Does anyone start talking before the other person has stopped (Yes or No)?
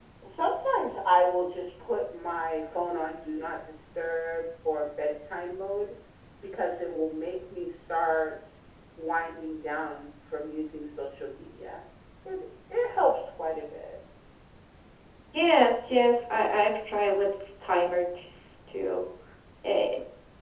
No